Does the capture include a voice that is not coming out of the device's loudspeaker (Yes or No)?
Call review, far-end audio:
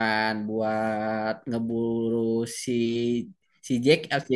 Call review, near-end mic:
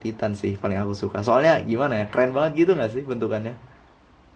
Yes